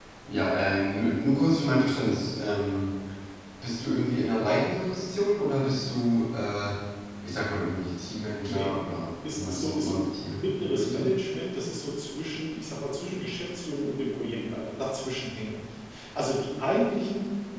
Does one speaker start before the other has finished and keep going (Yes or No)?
Yes